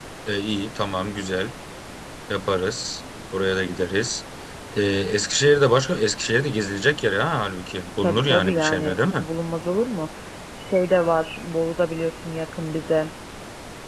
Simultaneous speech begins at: 8.0 s

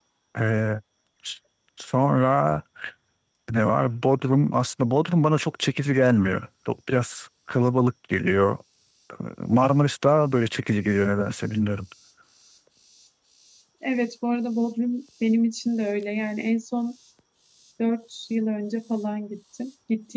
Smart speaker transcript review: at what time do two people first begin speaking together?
none

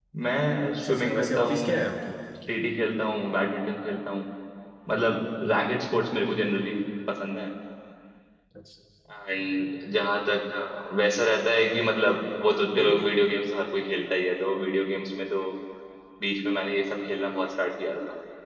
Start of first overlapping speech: 0.5 s

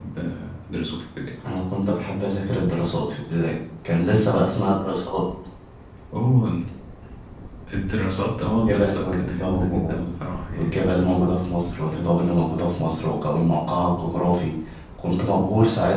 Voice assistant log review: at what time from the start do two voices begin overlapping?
8.7 s

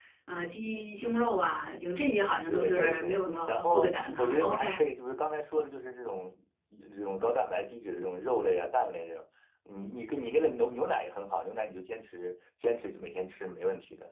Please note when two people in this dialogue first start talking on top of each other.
2.5 s

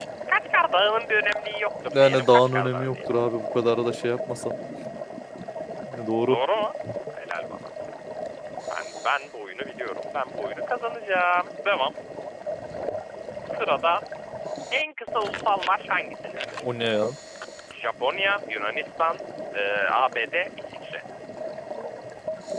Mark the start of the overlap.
1.9 s

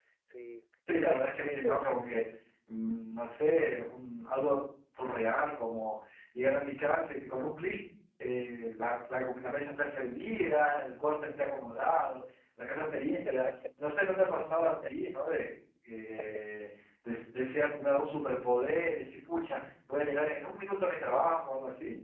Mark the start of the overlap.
1.0 s

